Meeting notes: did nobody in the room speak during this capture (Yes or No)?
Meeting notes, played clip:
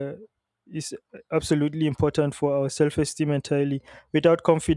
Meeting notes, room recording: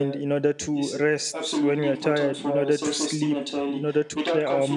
No